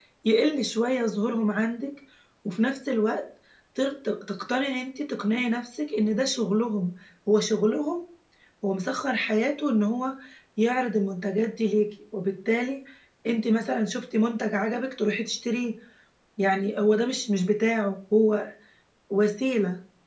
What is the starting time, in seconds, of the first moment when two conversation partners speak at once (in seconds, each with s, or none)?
none